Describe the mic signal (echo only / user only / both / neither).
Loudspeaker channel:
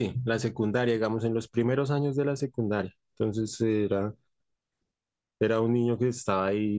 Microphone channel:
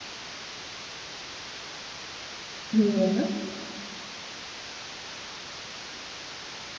user only